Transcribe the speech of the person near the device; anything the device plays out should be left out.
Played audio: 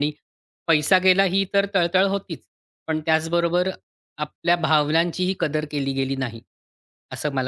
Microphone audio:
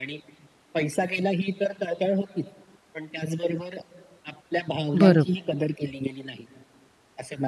बरोबर.

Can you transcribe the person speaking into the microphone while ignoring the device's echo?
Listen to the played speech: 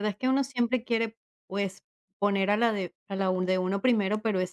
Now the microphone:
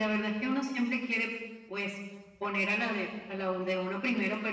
none

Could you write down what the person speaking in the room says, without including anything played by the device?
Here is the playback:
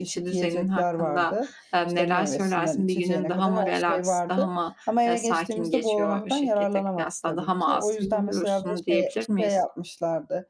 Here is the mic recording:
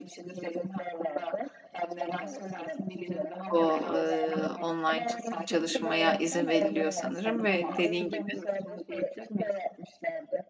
o, eee, online ç çalışmaya izin veriliyor sanırım ve dediğin gibi

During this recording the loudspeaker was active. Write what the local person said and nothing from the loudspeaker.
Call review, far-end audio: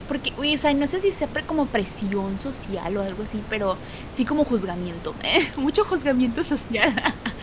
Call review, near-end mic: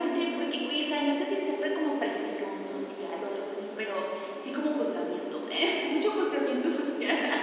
none

